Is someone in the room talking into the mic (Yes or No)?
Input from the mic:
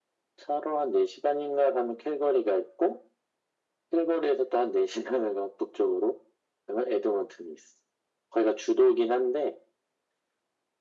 No